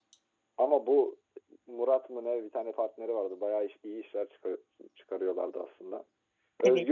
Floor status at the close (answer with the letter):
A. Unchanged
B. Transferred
A